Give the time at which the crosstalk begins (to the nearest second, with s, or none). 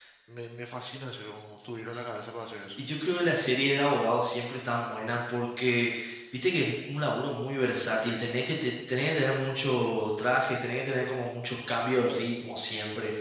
none